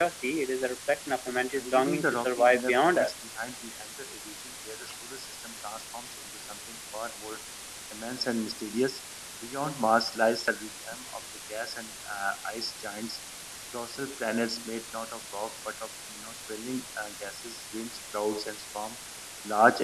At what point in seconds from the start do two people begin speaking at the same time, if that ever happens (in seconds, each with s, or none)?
1.6 s